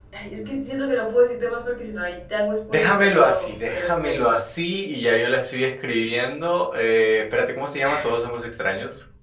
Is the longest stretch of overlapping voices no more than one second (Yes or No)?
No